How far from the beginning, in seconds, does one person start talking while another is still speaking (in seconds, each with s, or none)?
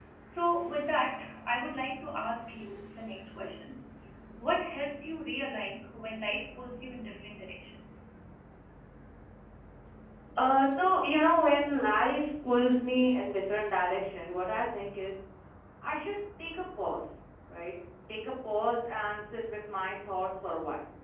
none